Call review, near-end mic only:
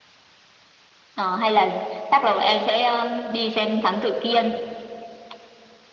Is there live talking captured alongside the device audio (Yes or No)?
No